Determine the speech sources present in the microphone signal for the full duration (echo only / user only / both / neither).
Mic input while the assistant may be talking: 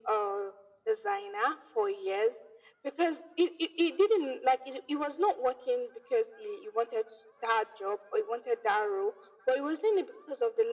echo only